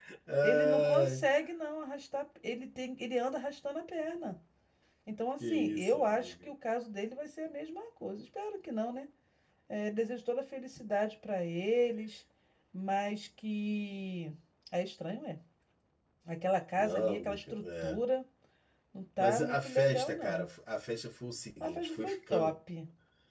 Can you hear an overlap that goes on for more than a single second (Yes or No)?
Yes